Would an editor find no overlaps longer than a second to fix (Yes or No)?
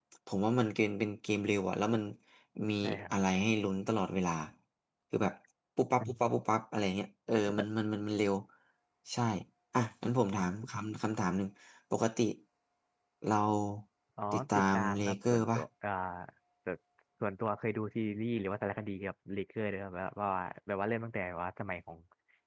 No